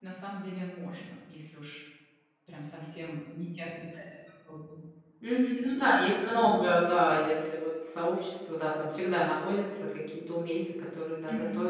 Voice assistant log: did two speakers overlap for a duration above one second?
No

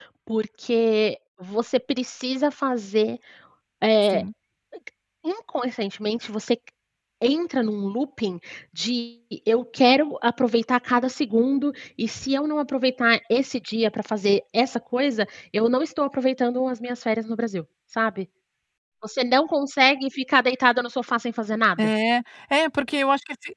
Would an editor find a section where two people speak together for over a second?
No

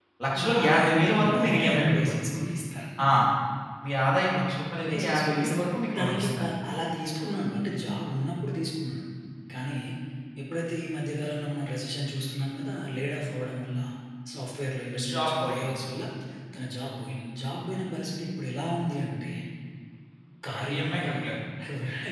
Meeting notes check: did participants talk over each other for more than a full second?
Yes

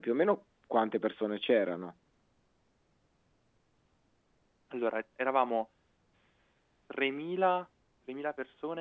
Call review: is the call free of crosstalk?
Yes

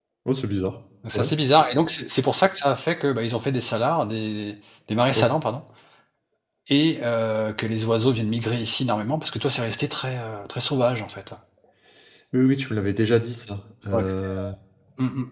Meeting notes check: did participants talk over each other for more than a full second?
No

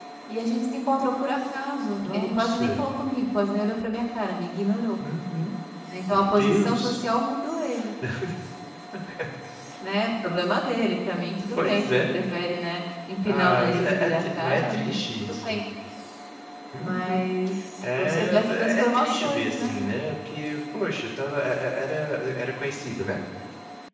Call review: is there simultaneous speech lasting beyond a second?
Yes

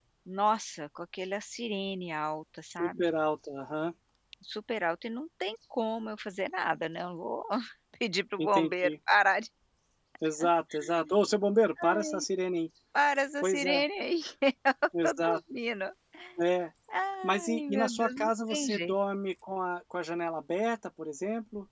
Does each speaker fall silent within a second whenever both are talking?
No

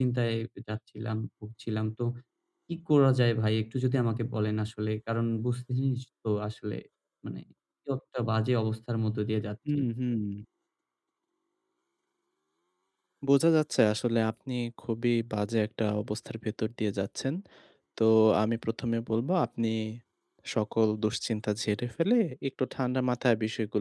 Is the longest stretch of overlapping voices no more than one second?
Yes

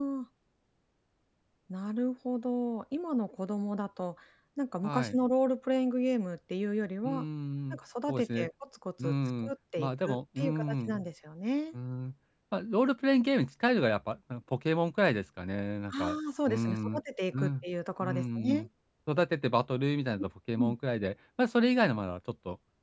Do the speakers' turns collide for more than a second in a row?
Yes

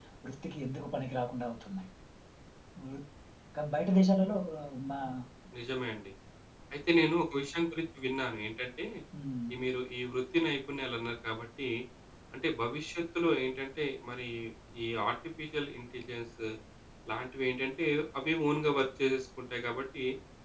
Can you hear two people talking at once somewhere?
No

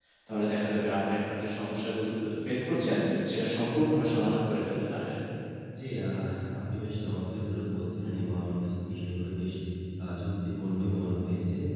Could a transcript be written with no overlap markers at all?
Yes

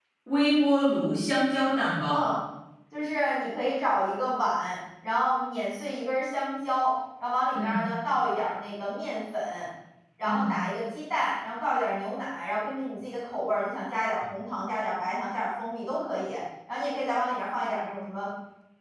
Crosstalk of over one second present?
No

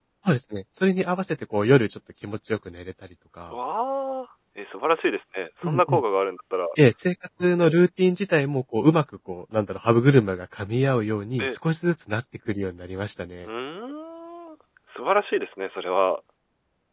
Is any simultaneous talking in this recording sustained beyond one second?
No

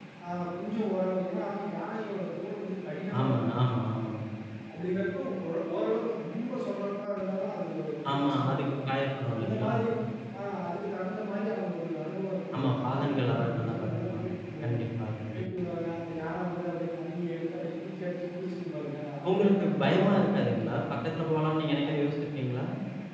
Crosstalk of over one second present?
Yes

